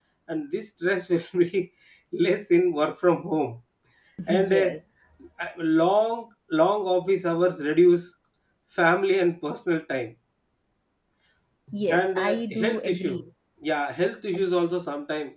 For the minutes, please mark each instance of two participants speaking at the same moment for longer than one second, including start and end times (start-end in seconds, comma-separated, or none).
11.9-13.2